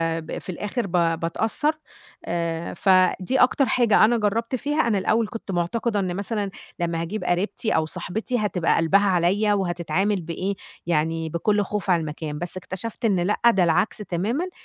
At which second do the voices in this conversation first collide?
none

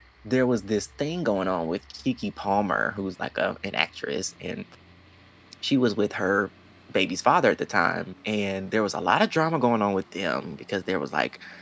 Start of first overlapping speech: none

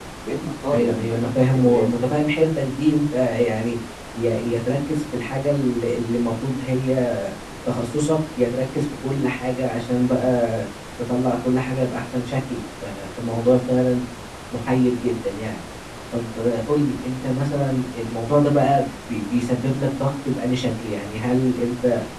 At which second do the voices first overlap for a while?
0.7 s

